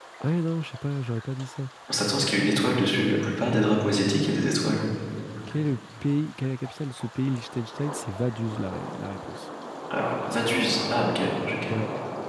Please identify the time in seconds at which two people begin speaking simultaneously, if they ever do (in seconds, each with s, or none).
none